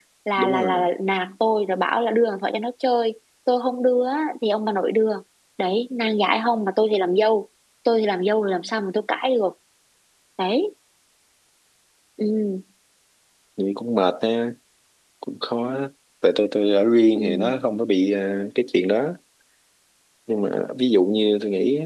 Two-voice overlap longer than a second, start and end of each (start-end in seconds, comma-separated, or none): none